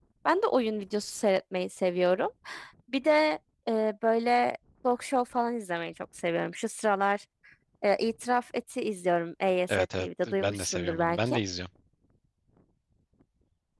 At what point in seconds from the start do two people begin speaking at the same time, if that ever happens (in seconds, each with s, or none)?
9.7 s